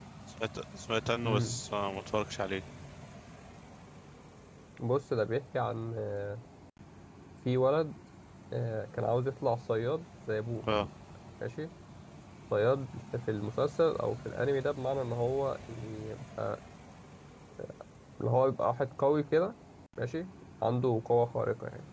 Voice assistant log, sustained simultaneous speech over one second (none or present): none